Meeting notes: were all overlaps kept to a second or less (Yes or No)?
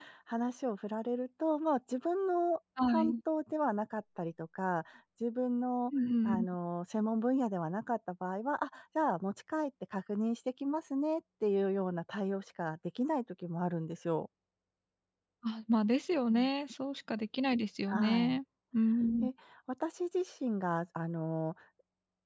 Yes